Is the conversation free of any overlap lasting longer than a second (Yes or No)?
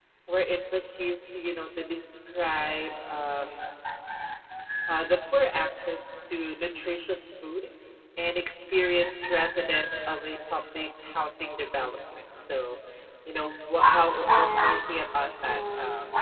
No